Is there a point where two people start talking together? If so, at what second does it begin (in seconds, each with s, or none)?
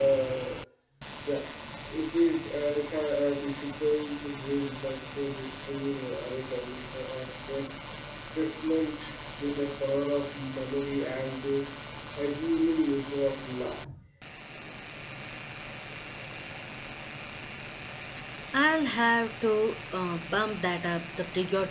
none